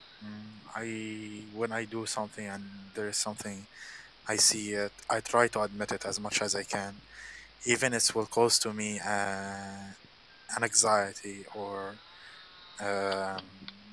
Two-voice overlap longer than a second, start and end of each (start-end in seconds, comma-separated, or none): none